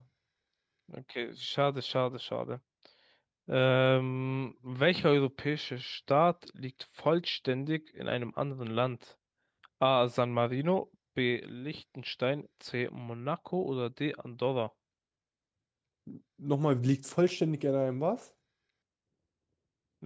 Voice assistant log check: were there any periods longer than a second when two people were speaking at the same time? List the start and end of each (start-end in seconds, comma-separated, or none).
none